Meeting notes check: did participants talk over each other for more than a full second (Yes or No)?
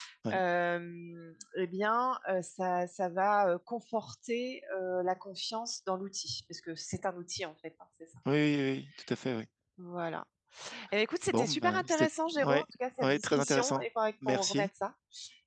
Yes